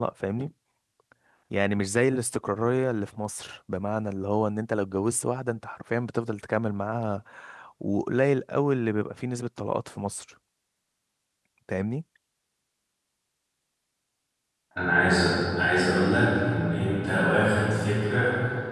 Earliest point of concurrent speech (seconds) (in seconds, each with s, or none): none